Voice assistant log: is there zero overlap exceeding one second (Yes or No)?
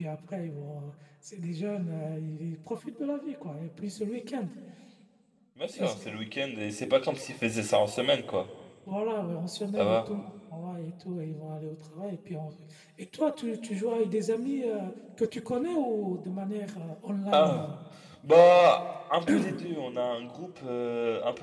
Yes